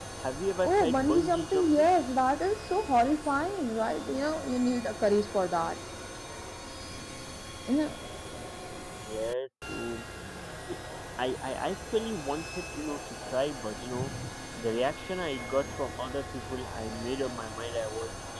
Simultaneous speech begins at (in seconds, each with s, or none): 0.7 s